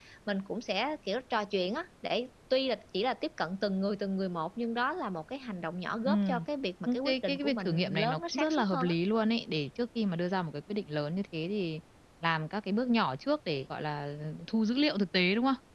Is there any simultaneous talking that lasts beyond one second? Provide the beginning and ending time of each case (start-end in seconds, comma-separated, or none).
6.9-8.9